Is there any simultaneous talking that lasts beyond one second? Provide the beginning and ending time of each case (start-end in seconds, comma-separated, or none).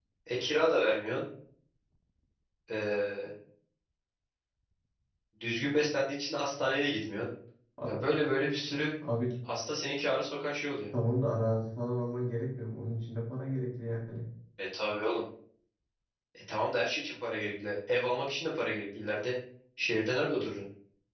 none